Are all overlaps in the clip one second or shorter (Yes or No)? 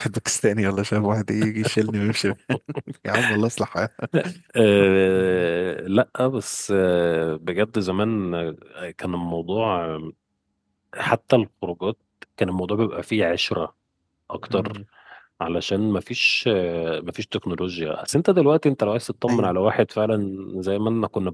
Yes